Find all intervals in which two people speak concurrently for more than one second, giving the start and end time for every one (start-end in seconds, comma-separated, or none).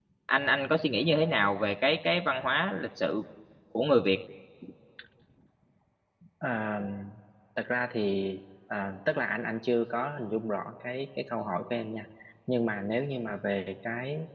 none